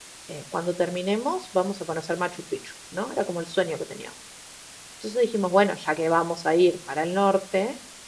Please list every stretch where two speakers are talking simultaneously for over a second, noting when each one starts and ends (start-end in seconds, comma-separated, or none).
none